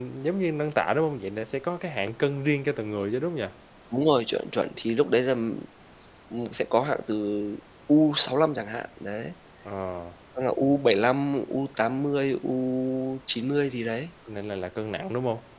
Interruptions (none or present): none